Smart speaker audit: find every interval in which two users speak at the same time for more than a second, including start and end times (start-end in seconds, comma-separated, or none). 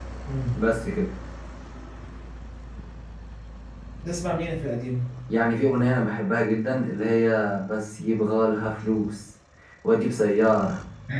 none